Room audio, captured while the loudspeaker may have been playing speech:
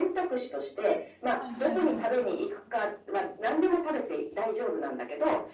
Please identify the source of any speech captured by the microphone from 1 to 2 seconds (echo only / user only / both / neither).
both